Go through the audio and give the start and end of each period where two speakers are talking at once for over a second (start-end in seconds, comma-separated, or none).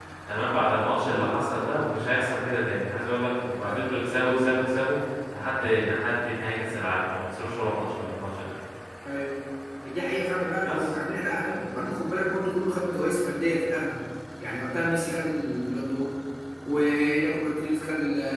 none